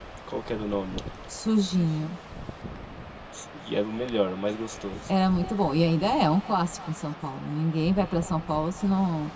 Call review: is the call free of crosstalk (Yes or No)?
Yes